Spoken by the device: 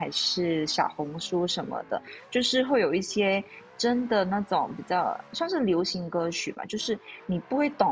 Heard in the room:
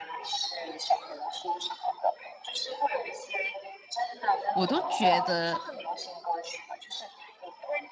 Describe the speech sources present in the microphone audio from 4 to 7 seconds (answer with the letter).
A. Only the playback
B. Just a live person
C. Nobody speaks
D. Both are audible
D